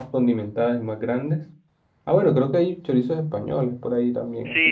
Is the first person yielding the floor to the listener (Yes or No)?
Yes